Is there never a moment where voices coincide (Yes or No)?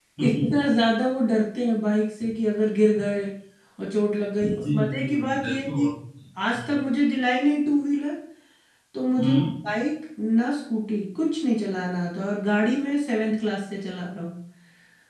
No